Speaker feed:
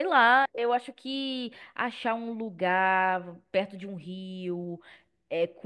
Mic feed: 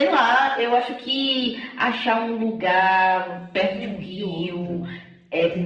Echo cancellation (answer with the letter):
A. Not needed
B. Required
B